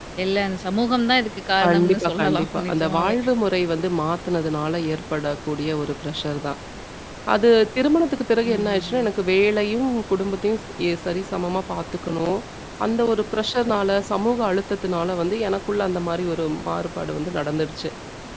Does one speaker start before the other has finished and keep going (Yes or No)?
Yes